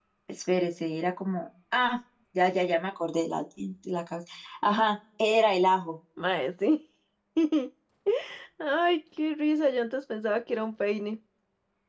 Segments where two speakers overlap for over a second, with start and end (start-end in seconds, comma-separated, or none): none